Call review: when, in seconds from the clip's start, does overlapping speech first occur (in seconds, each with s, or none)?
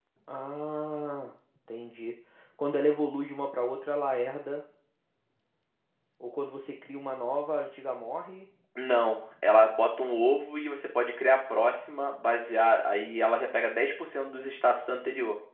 none